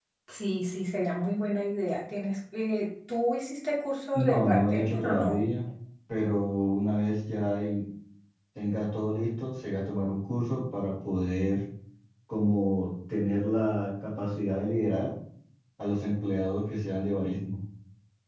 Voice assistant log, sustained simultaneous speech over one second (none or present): present